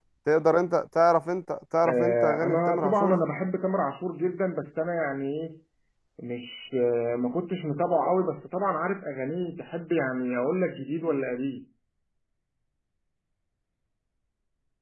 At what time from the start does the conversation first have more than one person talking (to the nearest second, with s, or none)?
2 s